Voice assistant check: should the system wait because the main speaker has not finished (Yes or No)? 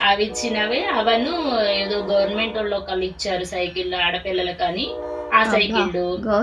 No